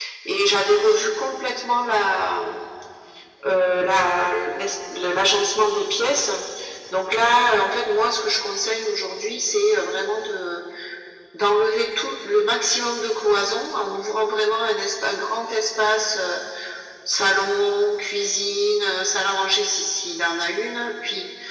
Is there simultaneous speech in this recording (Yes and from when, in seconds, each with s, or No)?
No